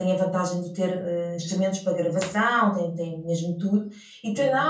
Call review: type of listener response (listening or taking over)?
listening